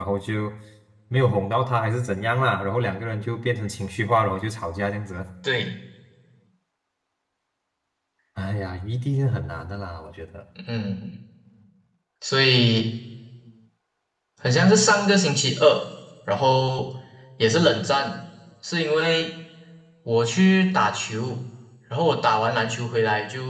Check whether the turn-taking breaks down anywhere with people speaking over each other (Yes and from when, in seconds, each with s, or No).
No